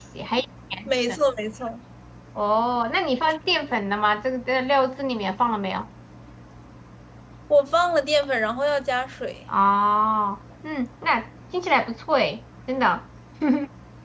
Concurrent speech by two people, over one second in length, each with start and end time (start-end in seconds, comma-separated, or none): none